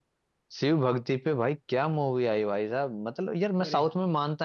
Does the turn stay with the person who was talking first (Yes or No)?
Yes